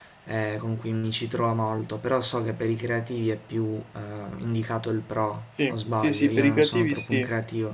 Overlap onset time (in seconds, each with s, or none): 5.6 s